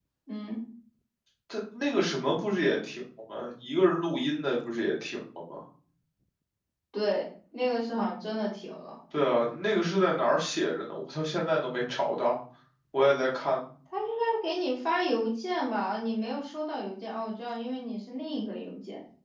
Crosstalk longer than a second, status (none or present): none